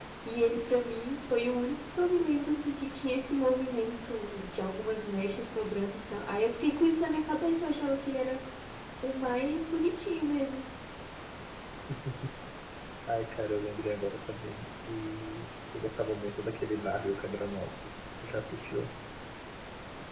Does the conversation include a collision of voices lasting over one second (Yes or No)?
No